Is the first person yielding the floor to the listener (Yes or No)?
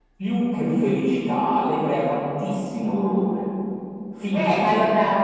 Yes